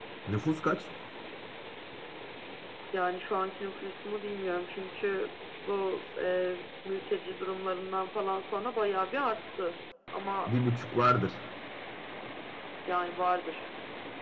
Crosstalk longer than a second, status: none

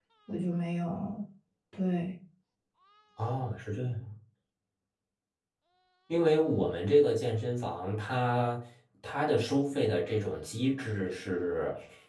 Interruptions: none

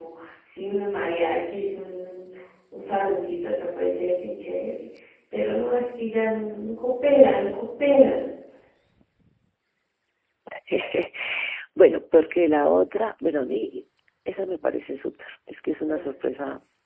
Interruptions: none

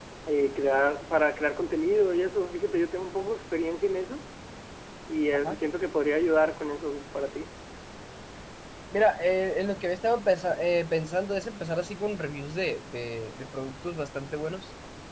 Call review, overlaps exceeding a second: none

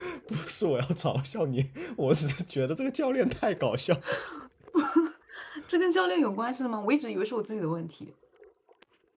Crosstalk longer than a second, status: none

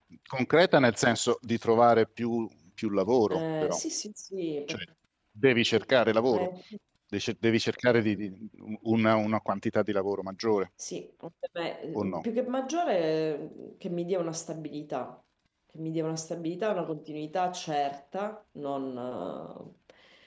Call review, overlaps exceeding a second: none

